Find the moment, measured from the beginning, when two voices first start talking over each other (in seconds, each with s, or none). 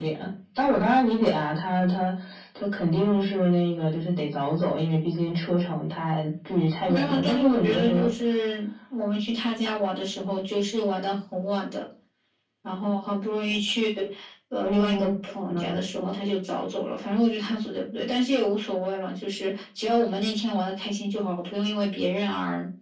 6.9 s